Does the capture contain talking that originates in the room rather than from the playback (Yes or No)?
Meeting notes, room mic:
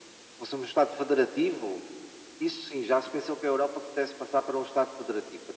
No